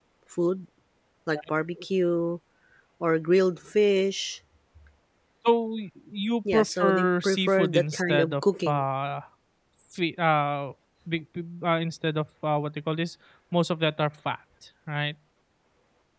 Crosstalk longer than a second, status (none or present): present